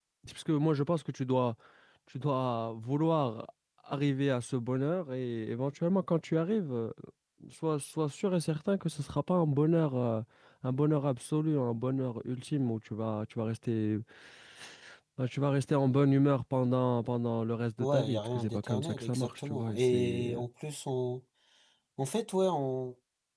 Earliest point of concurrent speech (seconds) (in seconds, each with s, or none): 17.8 s